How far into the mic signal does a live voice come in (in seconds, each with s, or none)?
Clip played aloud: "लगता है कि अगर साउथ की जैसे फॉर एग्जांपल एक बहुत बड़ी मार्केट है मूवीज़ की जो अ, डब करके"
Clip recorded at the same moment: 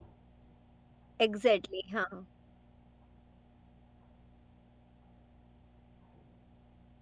1.2 s